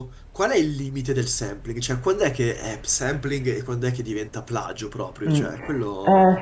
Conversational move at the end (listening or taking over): taking over